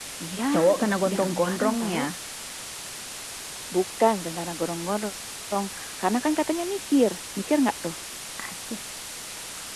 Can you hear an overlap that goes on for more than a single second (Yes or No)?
Yes